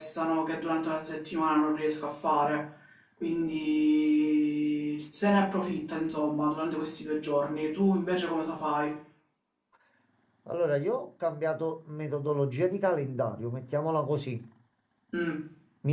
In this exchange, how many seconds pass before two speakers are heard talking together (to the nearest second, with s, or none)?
none